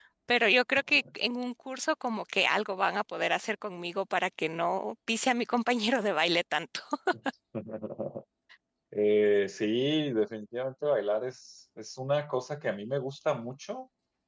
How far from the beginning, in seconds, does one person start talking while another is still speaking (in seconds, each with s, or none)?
none